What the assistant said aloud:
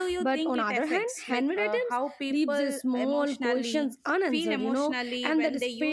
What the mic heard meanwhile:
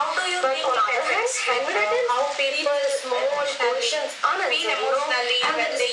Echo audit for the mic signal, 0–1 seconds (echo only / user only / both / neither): echo only